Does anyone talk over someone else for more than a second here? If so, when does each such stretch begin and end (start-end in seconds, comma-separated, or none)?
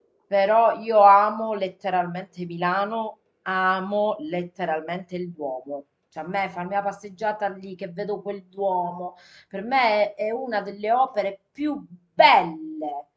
none